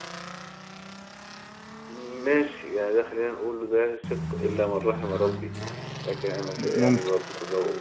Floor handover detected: No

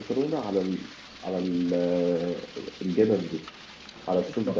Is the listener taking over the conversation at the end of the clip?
Yes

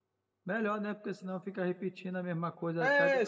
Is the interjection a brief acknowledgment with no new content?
No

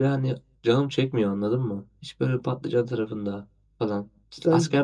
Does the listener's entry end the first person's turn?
No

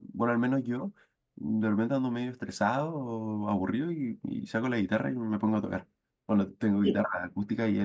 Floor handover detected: No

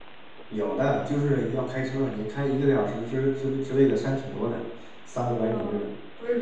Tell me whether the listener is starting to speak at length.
Yes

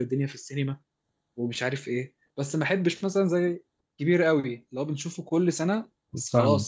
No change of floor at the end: Yes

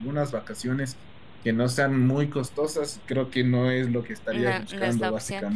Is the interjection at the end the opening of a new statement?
Yes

